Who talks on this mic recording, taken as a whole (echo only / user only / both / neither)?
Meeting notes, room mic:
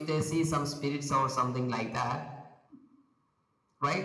echo only